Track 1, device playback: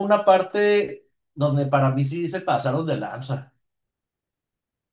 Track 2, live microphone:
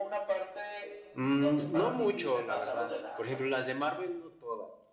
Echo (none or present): present